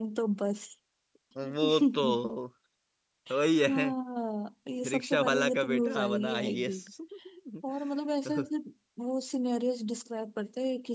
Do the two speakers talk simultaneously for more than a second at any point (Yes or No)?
Yes